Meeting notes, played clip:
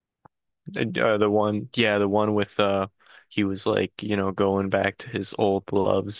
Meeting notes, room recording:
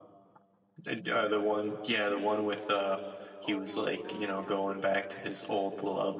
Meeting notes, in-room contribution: present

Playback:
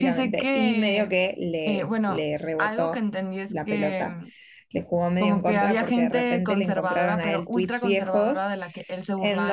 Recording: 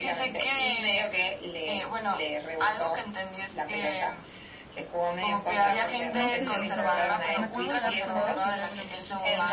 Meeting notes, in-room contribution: present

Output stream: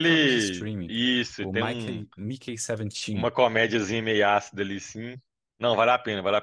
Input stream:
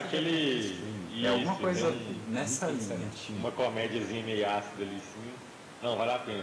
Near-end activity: present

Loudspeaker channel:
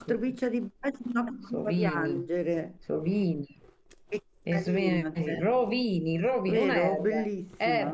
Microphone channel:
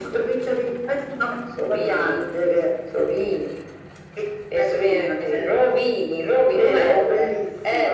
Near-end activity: none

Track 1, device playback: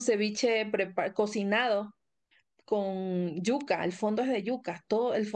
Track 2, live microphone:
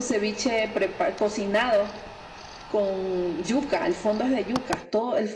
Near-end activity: none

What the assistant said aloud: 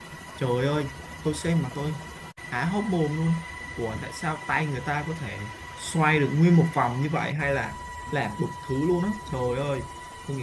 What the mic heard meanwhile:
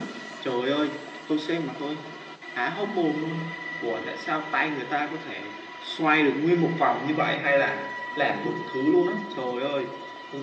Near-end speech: none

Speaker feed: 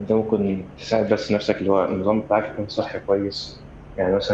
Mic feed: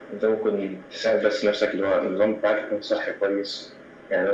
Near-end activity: none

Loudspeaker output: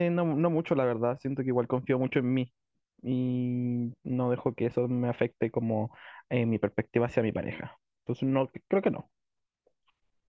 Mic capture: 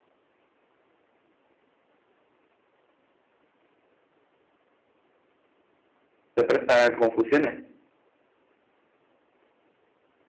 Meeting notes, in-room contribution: present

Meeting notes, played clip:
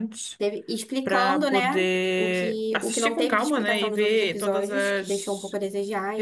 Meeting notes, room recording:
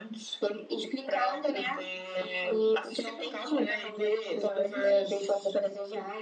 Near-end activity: none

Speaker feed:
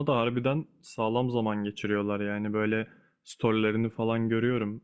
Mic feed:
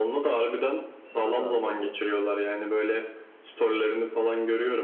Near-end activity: present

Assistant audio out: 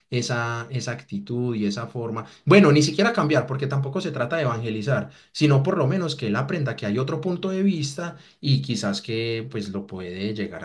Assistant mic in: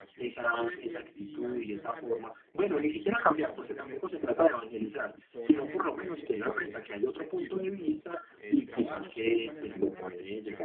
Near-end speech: present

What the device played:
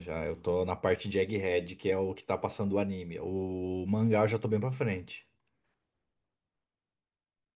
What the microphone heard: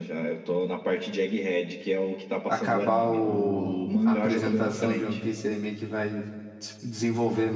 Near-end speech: present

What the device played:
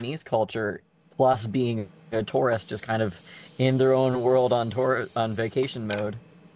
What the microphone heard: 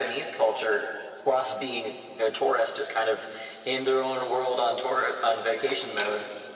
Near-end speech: none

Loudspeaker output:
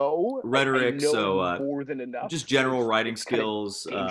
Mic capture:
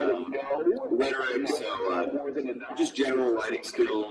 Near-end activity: present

